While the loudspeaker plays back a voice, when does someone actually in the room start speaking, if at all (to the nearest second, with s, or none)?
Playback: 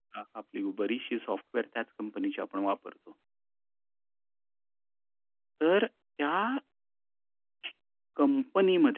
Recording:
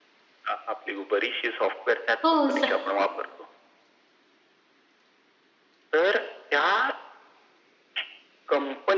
2 s